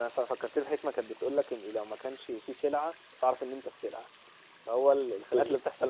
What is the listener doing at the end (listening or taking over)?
listening